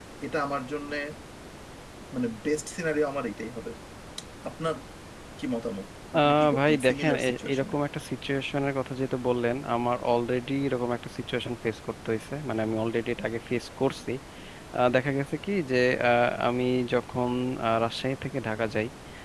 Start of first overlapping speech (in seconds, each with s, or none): 6.2 s